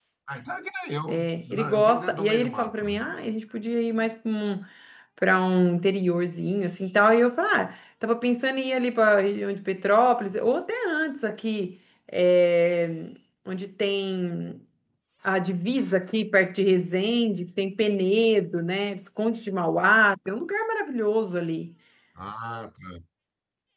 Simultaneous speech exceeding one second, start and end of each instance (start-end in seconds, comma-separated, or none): 1.1-3.0